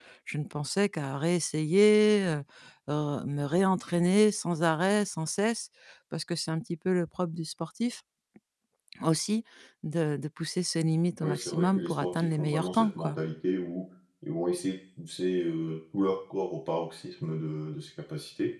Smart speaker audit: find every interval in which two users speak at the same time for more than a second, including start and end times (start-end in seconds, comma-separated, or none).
11.2-13.2